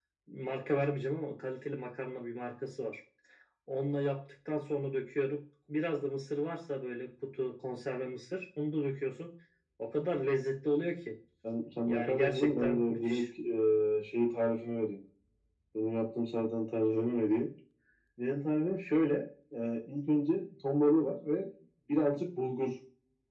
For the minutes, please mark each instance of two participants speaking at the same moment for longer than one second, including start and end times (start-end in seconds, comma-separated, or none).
11.8-13.2